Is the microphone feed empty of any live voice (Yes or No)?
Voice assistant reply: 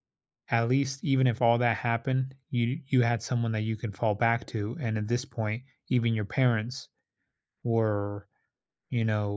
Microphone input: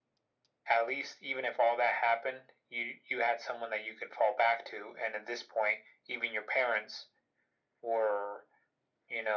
Yes